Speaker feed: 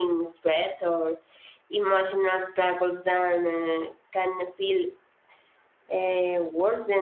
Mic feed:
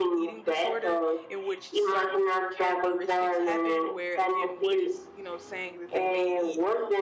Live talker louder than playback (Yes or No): No